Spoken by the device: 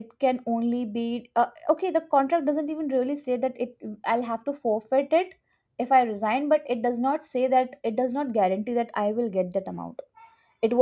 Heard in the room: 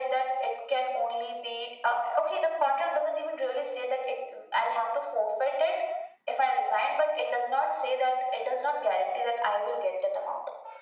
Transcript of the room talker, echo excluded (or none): none